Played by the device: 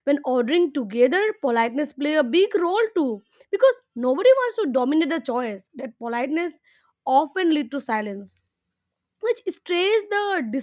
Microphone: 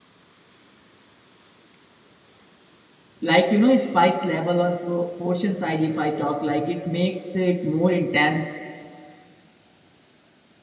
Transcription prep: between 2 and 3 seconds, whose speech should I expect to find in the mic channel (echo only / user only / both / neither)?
neither